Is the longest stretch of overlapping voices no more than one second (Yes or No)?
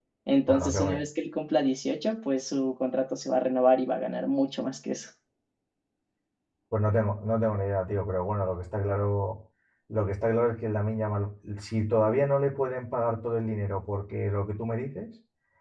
Yes